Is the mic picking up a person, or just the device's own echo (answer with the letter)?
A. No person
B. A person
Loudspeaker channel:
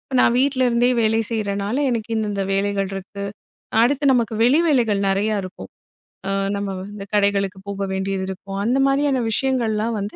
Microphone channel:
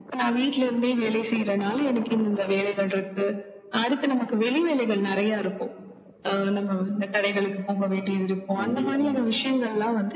B